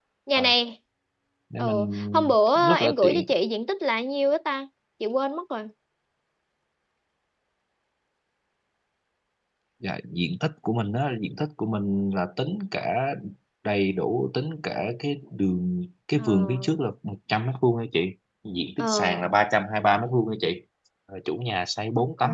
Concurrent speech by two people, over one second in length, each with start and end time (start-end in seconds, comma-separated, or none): 1.6-3.3